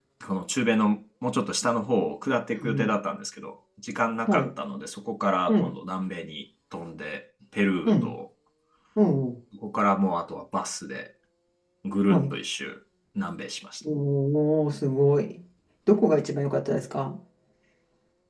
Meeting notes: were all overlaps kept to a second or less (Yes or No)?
Yes